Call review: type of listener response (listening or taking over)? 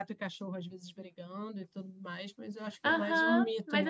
taking over